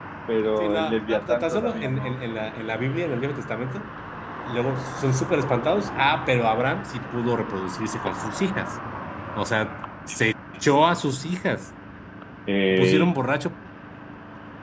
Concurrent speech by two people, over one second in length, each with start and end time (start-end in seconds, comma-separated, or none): 0.6-2.1